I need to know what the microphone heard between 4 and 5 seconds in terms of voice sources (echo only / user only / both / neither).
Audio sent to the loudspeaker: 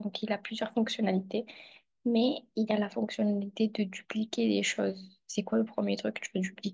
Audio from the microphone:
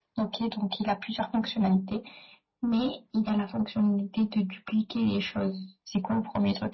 echo only